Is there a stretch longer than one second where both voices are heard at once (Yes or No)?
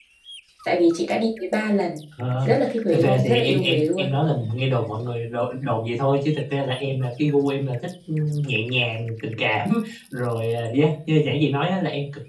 Yes